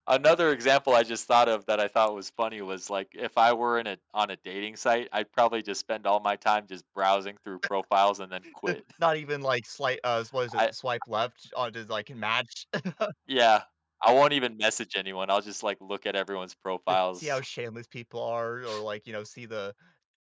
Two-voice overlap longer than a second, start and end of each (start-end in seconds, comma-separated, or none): none